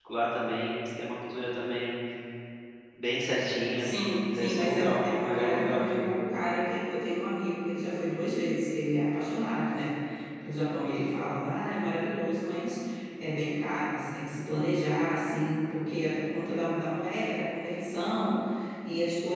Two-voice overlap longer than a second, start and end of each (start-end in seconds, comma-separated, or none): 4.4-6.1